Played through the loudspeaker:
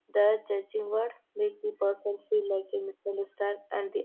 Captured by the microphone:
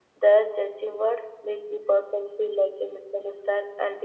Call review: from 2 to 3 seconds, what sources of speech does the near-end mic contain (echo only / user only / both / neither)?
echo only